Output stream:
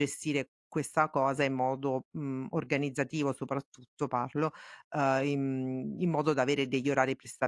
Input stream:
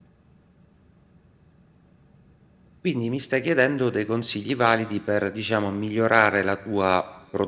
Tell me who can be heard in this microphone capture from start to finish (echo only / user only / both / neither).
user only